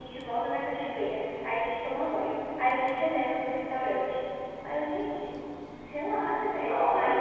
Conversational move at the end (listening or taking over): listening